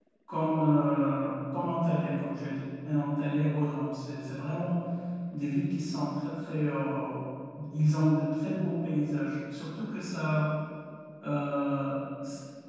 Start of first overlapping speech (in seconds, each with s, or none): none